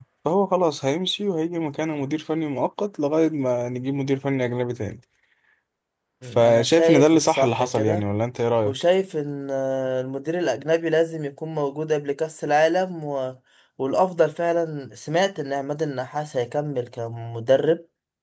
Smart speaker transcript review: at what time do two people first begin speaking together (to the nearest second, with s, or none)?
6 s